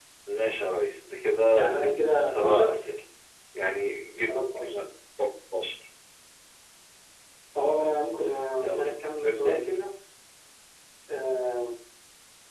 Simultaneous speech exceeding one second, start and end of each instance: 1.6-2.8

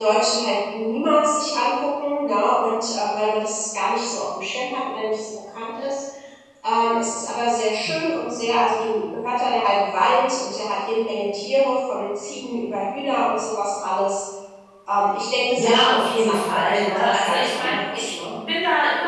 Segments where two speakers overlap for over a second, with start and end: 15.6-18.1

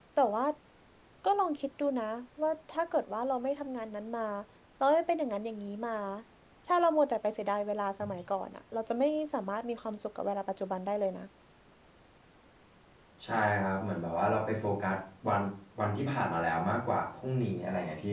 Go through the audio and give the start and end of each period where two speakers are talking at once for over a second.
none

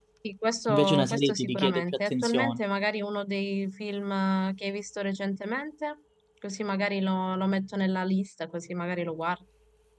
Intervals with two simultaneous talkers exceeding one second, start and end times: 0.7-2.6

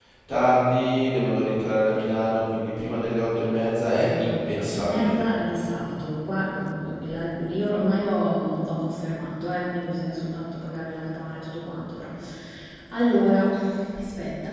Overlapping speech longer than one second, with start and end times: 4.0-5.2

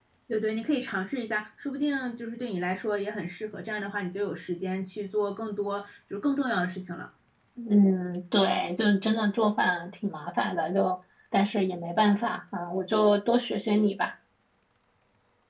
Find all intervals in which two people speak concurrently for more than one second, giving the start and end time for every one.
none

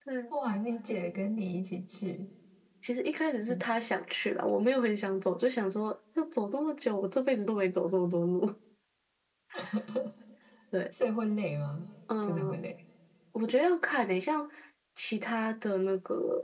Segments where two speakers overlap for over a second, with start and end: none

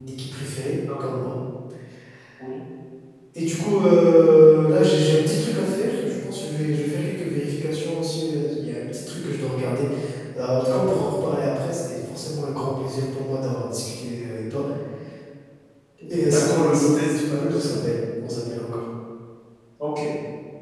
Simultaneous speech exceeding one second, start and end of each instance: 16.2-17.7

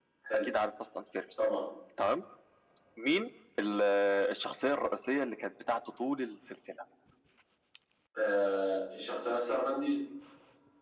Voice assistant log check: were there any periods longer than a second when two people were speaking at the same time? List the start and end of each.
none

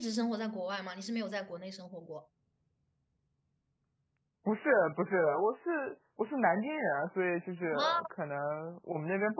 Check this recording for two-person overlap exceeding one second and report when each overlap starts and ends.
none

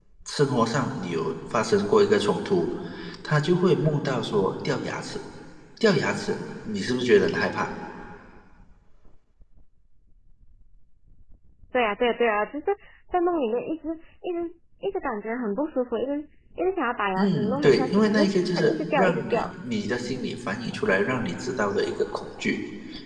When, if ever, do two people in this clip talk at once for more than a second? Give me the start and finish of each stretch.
17.2-19.4

